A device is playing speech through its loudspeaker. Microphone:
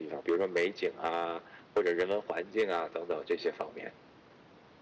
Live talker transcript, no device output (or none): none